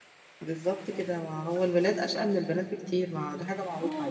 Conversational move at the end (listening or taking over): taking over